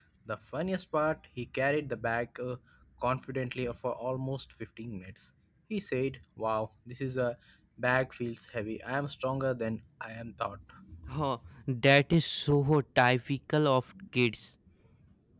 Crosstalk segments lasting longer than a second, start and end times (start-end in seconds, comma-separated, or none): none